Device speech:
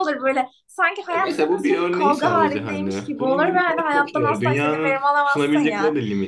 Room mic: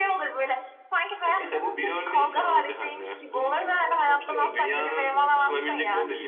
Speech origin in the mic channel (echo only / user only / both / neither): both